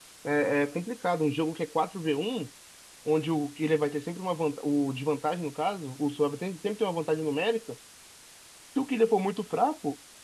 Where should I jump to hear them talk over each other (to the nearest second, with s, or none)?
none